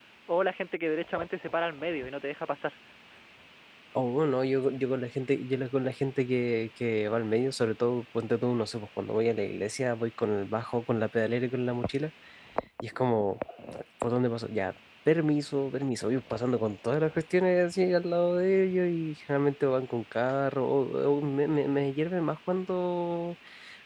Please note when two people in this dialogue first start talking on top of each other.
none

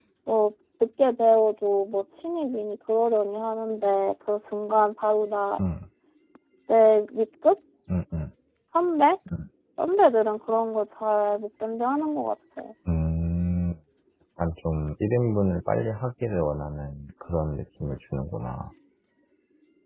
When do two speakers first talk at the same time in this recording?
none

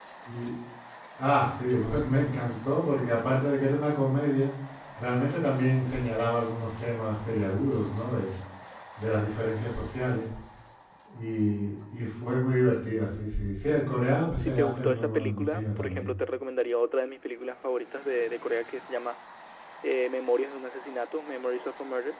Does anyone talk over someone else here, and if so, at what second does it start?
14.4 s

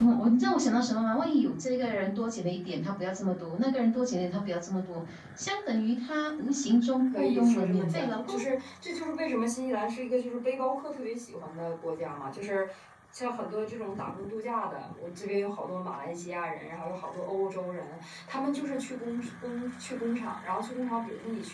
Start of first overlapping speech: 7.1 s

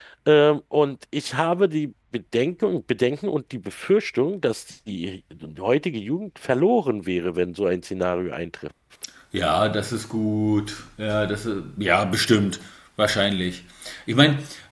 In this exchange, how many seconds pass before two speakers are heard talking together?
none

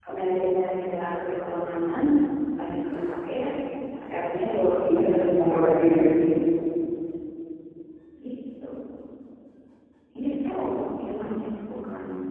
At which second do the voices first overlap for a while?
4.8 s

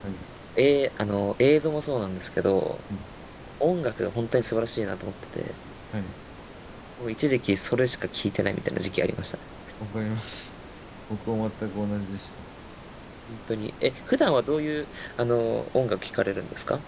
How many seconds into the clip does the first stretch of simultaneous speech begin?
none

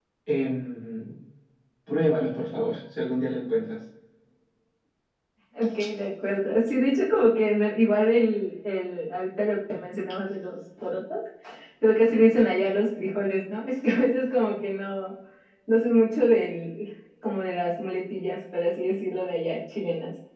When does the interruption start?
none

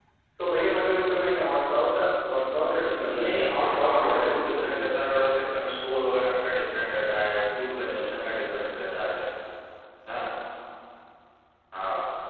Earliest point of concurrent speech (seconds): 3.0 s

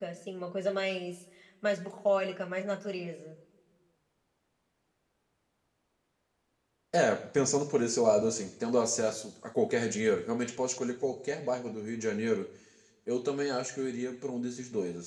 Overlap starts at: none

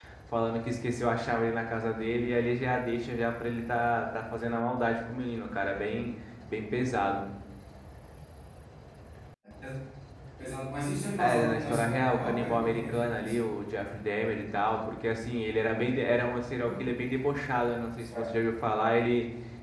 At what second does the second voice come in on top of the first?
11.2 s

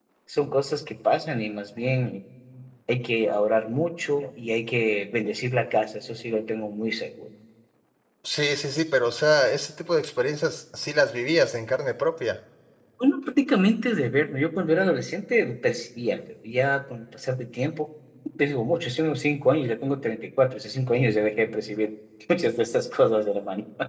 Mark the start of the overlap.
none

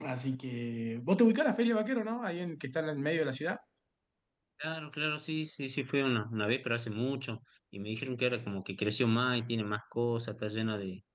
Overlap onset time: none

